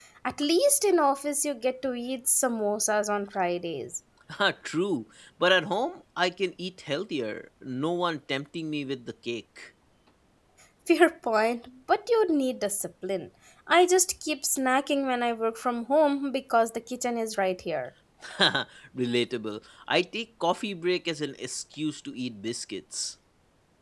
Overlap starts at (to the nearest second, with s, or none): none